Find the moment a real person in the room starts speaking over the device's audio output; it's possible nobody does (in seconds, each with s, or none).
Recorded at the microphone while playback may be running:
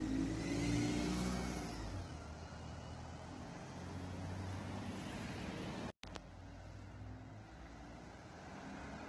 none